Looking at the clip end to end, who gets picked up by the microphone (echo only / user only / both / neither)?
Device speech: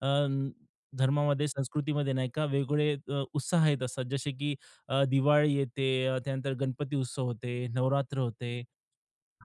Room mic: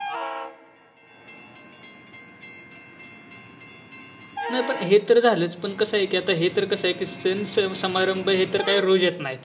user only